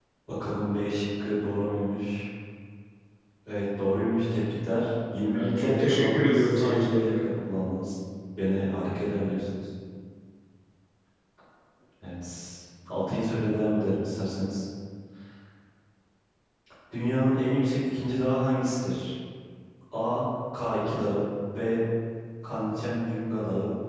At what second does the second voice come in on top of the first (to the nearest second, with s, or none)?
5 s